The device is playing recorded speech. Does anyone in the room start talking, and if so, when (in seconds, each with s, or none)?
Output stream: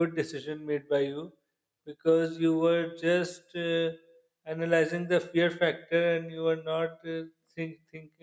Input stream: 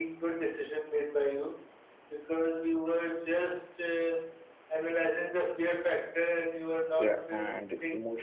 7.0 s